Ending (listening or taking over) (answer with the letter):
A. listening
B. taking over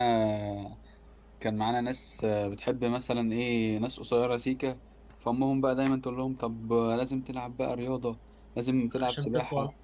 A